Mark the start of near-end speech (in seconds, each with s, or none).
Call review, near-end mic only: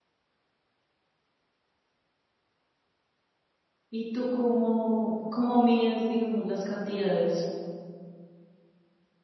3.9 s